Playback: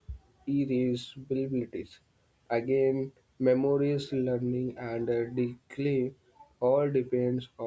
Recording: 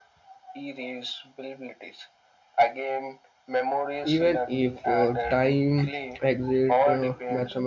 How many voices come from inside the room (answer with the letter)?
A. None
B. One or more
B